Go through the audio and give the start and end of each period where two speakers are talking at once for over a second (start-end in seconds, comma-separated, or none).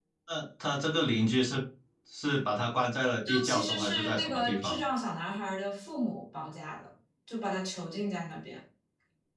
3.2-4.8